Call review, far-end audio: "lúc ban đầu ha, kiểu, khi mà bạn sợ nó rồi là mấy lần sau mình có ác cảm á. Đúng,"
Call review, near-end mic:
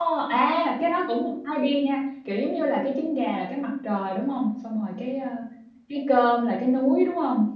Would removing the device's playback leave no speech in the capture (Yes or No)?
No